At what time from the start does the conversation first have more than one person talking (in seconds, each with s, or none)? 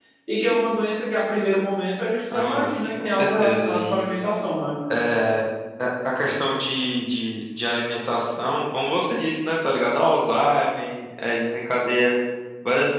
2.3 s